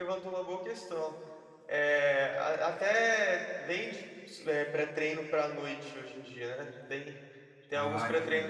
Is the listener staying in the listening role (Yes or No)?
Yes